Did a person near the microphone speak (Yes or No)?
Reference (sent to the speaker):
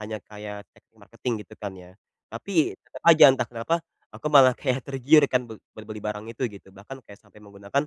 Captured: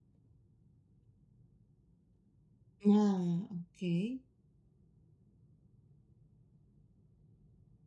Yes